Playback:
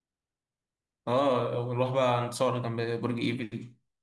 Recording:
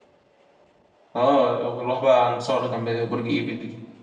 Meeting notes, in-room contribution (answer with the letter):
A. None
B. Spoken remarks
A